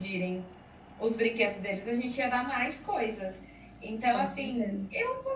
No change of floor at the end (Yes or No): Yes